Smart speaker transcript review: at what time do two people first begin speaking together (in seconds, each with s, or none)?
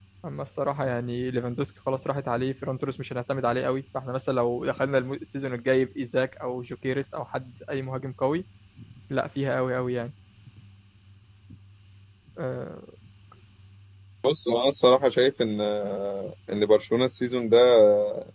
none